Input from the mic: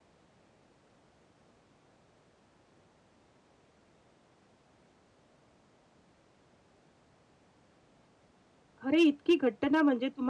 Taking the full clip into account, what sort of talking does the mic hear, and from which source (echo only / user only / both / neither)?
user only